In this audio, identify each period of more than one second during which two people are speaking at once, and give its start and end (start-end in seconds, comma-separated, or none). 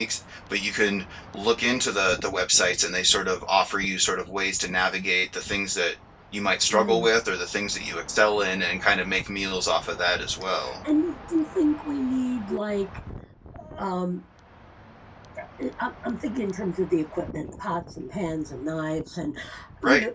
none